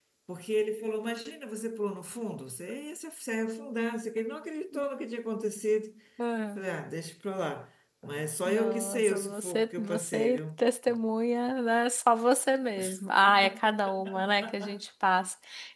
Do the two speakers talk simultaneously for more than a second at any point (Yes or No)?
Yes